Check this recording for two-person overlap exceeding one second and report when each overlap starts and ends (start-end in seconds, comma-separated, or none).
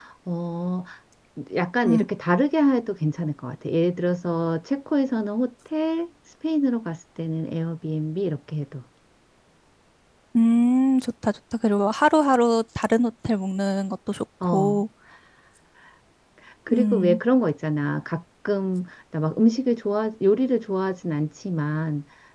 none